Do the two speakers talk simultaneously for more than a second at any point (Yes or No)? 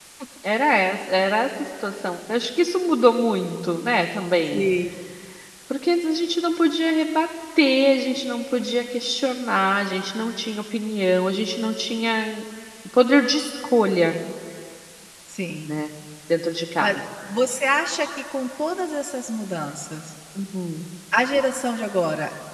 No